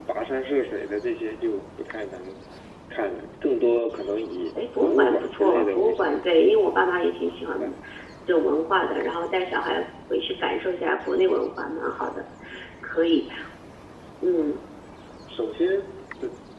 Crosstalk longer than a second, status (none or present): present